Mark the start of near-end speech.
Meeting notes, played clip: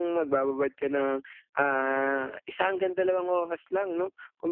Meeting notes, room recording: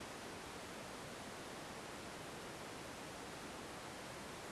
none

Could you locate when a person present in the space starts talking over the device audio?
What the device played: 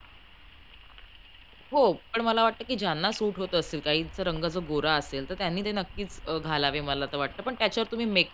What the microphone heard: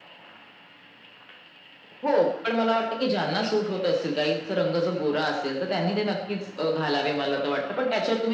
none

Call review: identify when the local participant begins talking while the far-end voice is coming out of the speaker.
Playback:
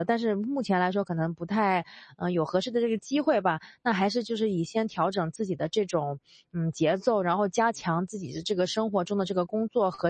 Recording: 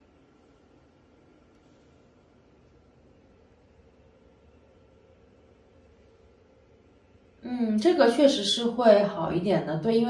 7.4 s

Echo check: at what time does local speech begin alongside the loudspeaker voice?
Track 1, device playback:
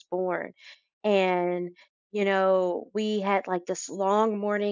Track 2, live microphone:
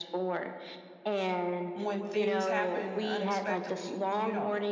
1.7 s

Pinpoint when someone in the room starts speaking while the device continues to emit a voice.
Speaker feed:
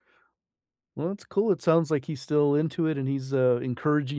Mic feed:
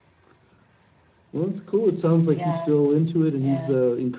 2.3 s

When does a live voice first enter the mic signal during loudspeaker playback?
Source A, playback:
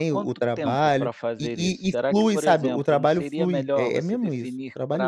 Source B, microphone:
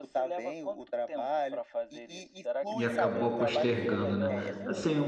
2.7 s

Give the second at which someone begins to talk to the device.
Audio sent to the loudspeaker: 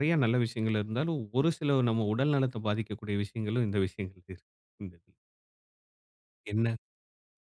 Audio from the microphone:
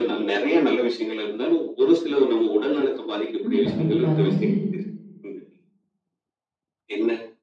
3.4 s

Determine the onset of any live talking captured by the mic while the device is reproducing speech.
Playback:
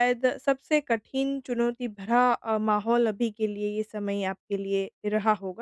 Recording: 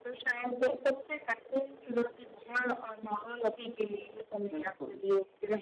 4.5 s

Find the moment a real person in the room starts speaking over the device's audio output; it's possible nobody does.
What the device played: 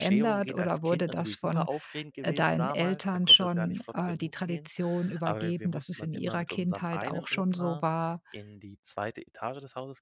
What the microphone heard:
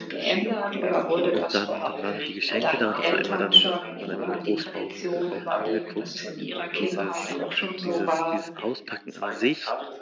1.3 s

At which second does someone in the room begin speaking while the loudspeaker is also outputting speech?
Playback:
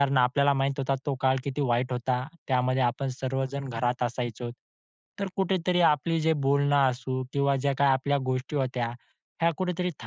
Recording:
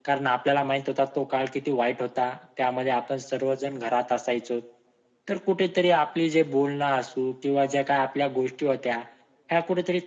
none

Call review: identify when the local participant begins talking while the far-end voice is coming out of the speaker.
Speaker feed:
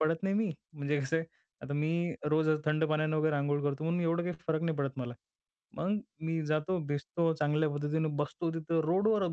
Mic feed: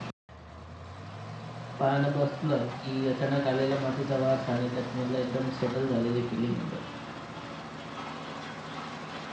1.8 s

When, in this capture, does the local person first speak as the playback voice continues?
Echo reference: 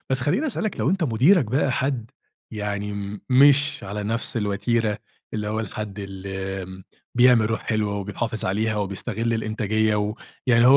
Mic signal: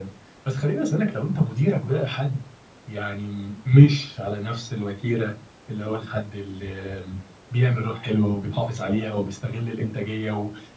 none

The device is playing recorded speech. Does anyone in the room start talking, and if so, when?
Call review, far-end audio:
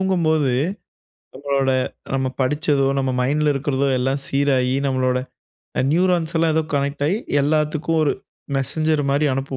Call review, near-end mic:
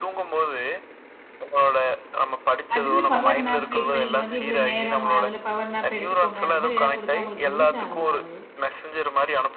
2.8 s

